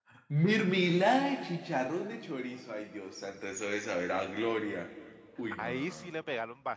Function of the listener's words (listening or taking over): taking over